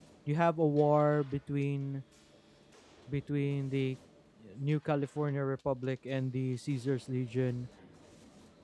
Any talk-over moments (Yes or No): No